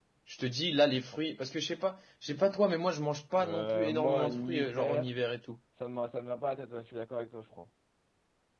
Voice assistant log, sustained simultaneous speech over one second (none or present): present